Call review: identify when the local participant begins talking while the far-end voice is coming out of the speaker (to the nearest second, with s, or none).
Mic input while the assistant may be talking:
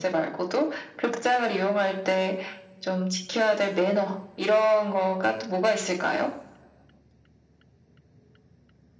none